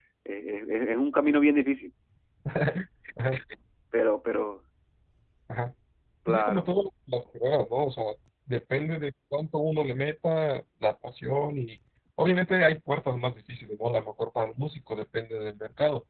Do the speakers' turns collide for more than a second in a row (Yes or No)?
No